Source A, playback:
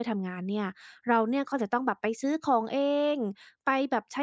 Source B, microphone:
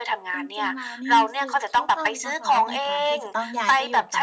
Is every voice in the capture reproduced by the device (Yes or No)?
No